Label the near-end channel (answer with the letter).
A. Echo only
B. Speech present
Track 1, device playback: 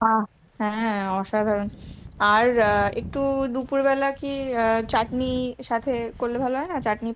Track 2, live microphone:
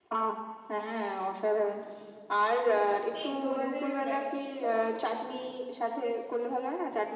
B